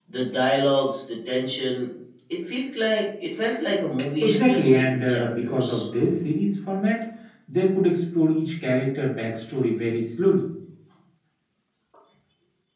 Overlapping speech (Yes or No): Yes